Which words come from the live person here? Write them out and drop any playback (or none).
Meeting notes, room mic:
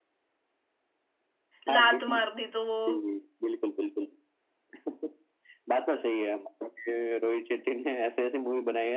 लात मार दी तो वो